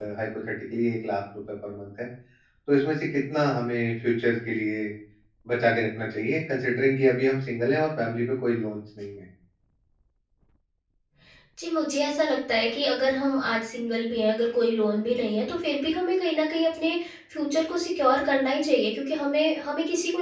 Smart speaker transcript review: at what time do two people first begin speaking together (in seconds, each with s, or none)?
none